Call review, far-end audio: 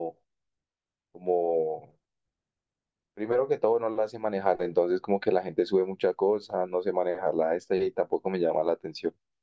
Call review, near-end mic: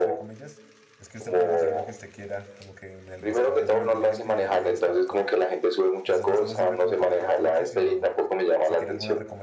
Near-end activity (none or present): present